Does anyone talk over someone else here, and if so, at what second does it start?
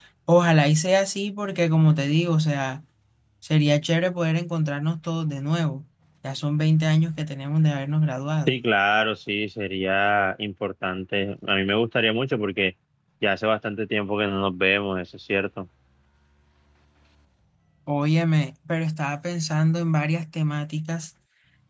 none

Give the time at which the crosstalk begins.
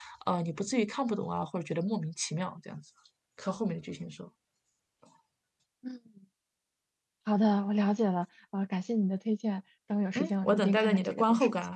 10.2 s

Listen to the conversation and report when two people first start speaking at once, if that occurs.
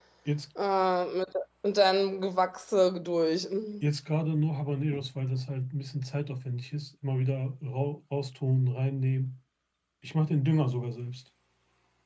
none

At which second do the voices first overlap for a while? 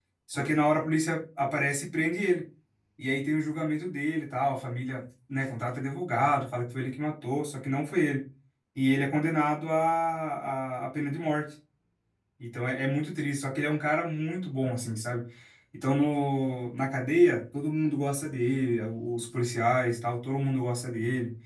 none

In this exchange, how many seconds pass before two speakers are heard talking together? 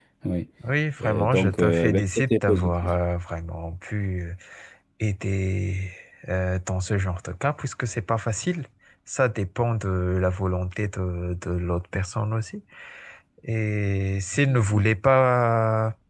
1.0 s

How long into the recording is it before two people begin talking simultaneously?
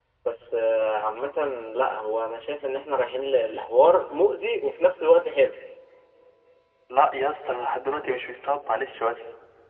none

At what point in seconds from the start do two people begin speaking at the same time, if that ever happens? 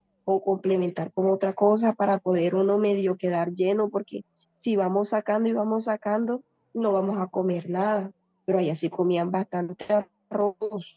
none

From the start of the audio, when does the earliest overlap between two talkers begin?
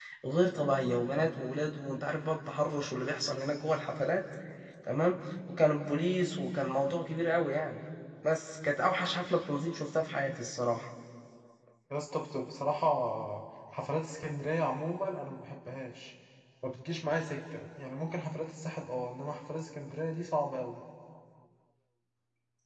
none

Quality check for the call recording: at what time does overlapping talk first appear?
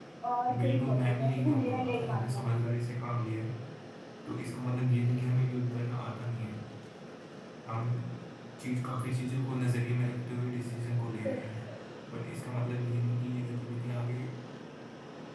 0.6 s

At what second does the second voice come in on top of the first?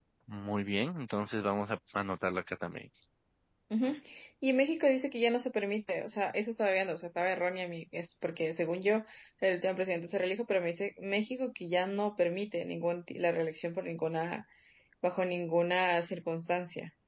none

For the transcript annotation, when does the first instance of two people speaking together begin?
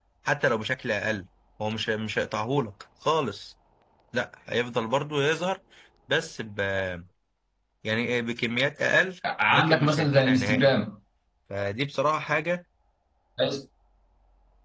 9.5 s

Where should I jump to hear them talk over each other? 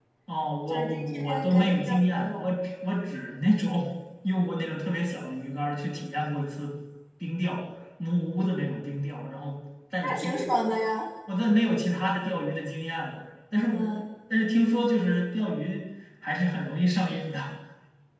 0.7 s

